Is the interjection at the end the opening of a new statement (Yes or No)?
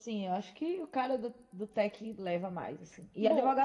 No